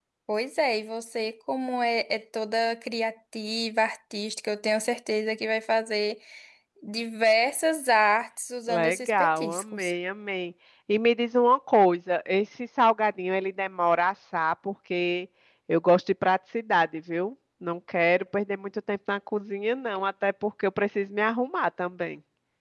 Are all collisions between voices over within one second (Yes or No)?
No